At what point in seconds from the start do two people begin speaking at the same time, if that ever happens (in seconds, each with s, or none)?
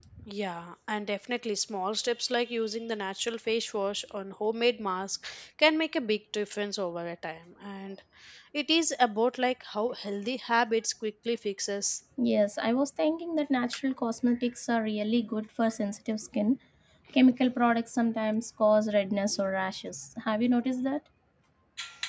none